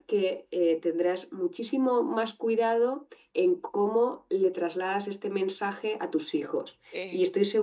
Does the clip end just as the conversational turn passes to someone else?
No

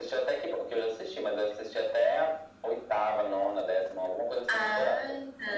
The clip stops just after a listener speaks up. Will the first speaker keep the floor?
No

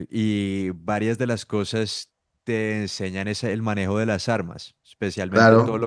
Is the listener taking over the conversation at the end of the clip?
Yes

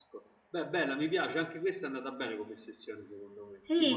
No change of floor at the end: No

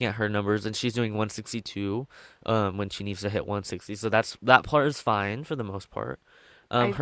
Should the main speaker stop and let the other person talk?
No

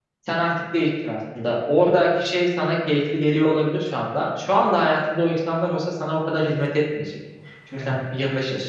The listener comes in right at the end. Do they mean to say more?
No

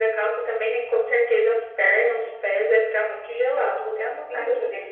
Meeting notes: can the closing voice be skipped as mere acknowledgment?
No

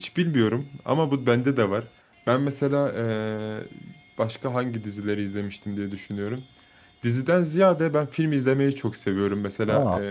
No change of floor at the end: Yes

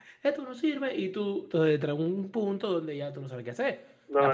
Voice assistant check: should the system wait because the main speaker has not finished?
No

